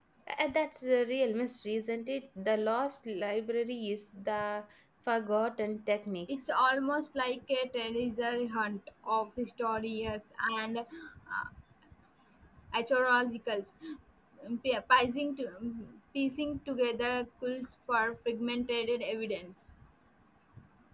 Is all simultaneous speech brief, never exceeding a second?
Yes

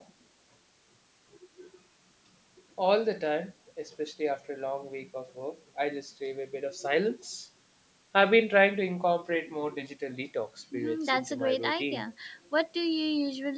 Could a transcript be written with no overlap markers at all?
No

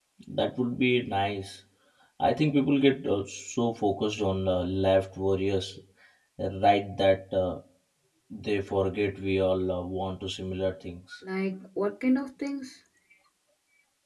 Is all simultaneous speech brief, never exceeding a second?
Yes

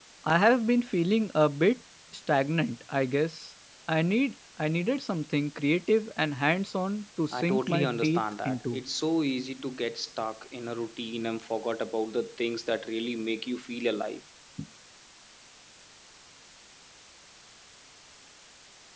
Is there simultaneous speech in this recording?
Yes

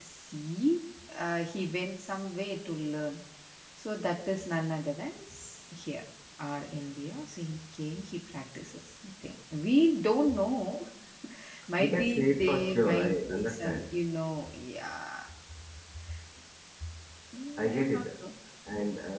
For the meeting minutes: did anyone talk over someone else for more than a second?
Yes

